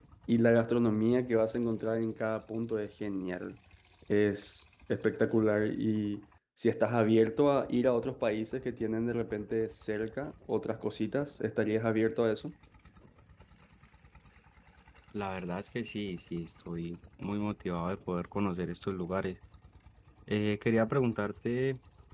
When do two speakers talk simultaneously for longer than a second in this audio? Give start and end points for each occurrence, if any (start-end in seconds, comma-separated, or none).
none